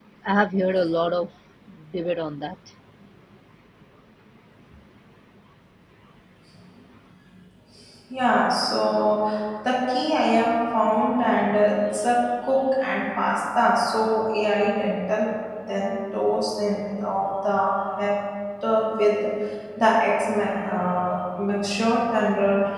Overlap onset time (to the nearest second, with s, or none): none